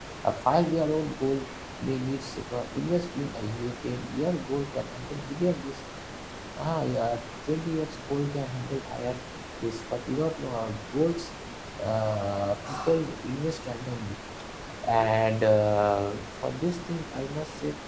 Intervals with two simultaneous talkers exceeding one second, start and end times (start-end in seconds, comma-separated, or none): none